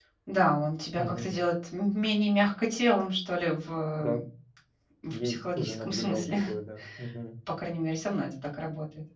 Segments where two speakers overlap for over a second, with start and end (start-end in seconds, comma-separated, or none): 5.1-6.4